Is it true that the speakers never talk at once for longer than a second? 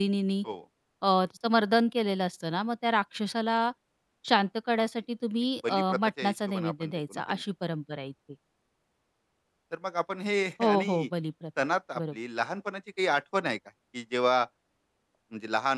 No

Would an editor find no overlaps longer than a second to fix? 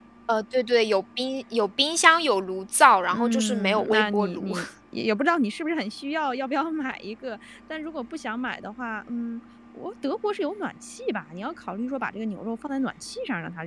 No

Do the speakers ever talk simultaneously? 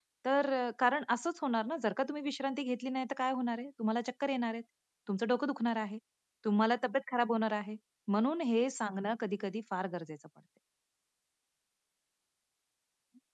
No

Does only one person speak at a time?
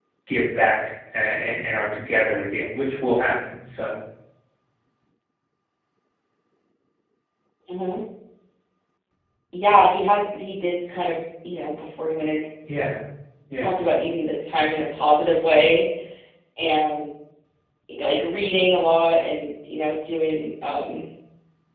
Yes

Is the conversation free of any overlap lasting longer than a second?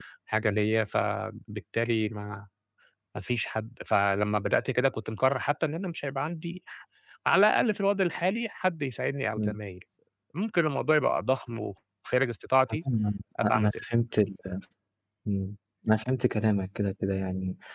Yes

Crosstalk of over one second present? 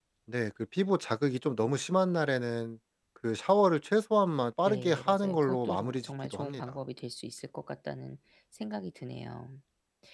Yes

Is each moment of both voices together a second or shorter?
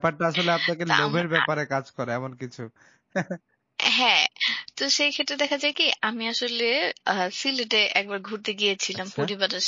Yes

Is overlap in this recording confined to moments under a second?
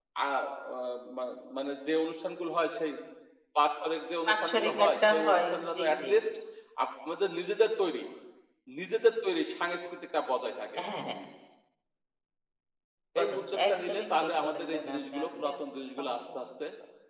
No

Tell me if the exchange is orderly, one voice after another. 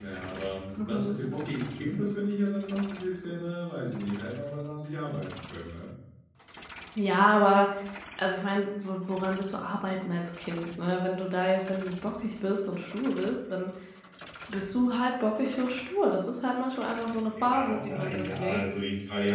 No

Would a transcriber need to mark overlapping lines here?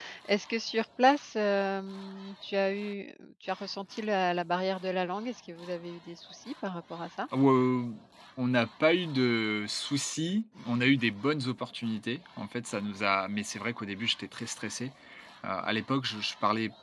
No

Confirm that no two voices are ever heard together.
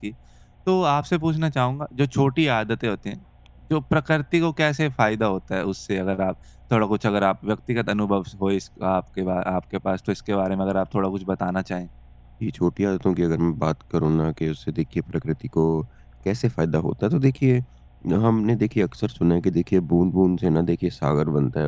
Yes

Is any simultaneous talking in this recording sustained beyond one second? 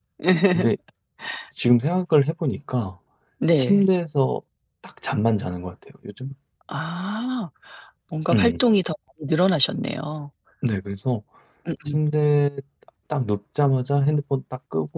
No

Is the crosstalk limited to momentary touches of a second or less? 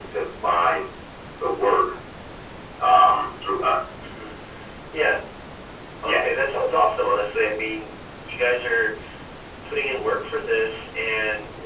Yes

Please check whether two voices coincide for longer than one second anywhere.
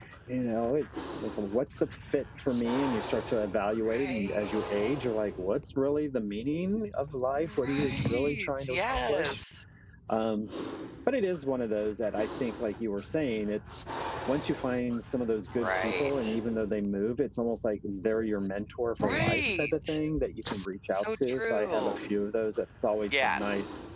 Yes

